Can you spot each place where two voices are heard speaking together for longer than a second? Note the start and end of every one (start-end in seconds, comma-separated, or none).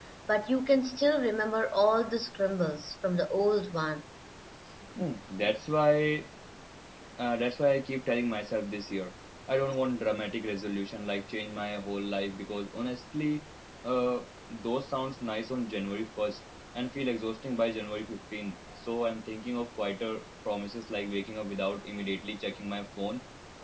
none